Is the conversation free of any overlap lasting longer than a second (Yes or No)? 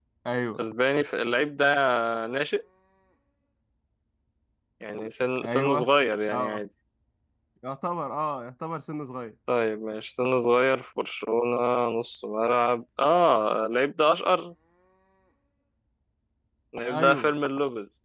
Yes